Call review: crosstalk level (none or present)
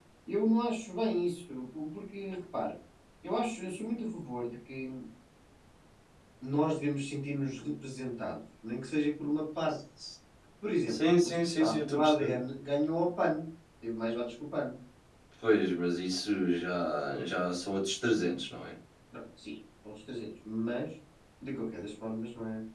present